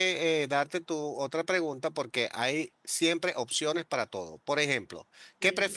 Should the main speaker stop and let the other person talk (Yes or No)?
No